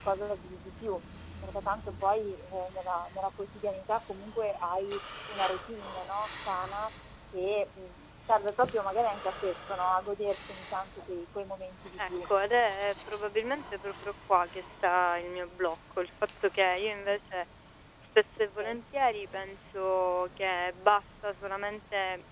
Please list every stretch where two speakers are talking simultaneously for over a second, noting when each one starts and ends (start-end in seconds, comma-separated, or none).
none